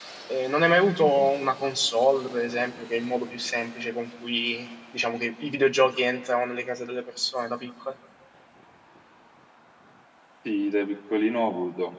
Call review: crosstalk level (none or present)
none